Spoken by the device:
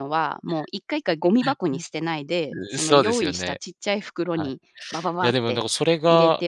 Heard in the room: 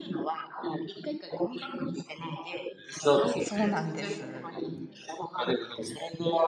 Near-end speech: present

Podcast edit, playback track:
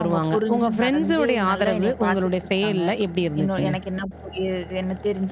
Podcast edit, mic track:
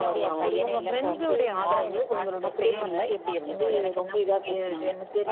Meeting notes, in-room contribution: present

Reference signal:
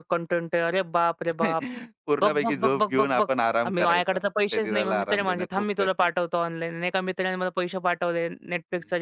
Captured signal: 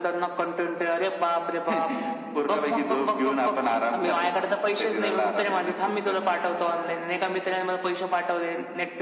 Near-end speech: none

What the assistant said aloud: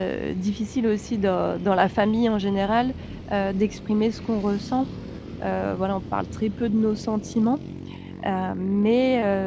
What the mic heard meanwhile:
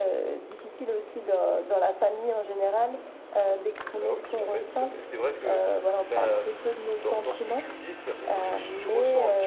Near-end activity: present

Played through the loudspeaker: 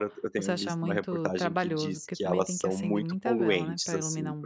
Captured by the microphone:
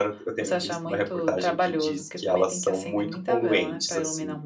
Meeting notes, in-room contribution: none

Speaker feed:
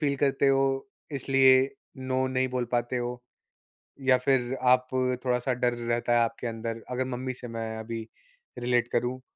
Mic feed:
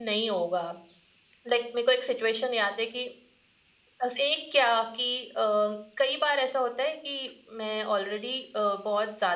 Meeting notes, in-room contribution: present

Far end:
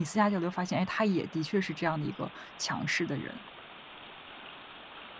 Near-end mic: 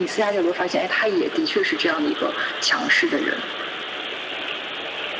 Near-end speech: none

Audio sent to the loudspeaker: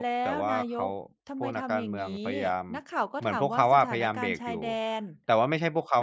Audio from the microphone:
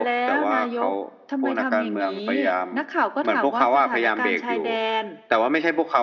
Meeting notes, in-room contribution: none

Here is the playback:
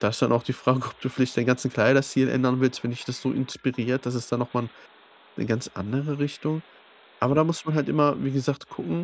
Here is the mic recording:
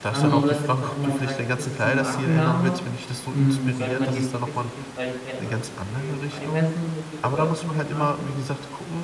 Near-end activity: present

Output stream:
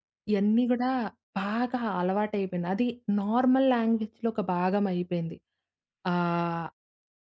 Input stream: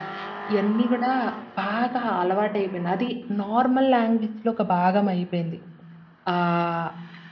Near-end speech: none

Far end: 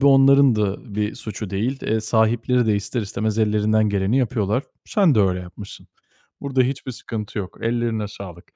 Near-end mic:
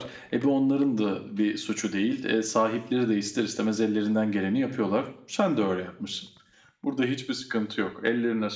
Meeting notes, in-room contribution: none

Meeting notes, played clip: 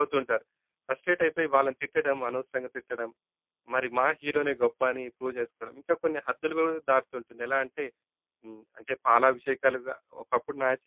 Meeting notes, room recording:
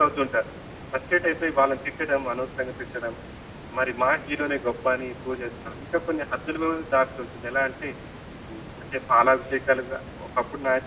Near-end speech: none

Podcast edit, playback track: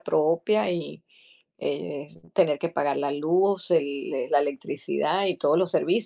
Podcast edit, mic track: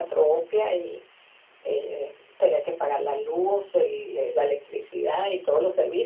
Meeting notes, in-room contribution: none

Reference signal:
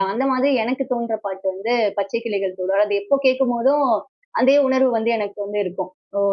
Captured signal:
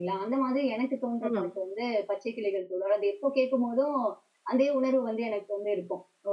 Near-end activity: present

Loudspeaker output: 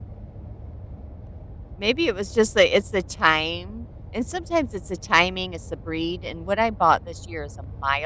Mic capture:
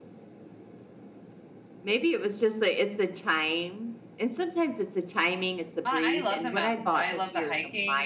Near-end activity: present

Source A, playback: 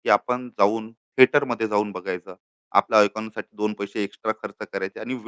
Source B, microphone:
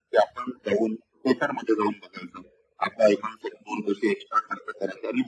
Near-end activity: none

